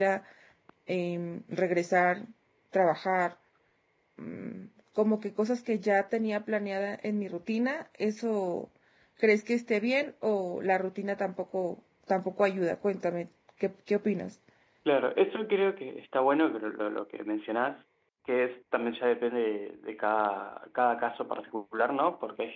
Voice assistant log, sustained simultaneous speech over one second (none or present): none